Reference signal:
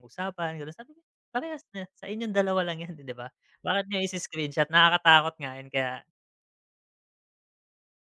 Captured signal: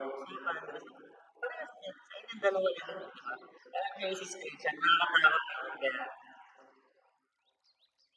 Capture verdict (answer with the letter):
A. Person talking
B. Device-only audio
B